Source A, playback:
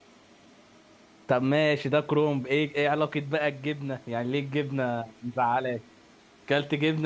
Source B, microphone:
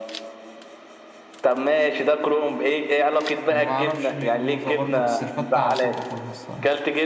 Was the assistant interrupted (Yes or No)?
Yes